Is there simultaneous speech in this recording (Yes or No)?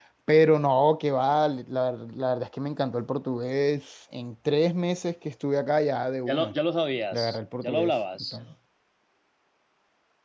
Yes